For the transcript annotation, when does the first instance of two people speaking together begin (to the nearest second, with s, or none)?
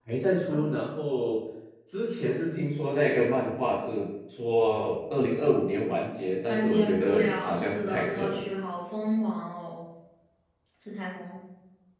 6 s